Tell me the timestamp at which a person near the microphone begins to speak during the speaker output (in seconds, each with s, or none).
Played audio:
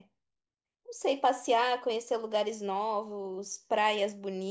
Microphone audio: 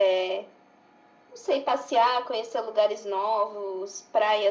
none